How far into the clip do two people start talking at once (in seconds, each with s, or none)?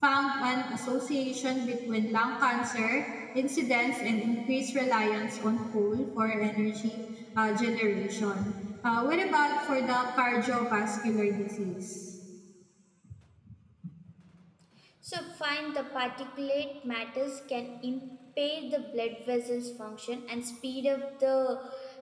none